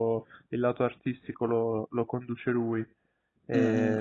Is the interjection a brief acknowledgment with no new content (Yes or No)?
No